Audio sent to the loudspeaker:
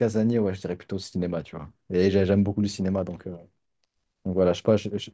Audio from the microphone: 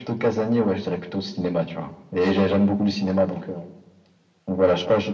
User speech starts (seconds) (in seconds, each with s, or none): none